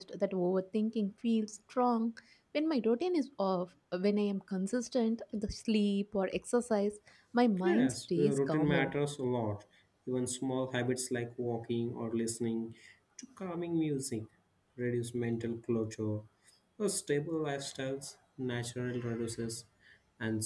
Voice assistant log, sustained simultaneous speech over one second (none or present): present